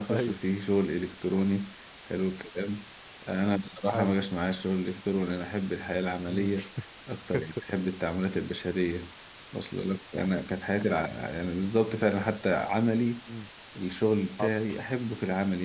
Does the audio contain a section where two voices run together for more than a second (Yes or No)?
No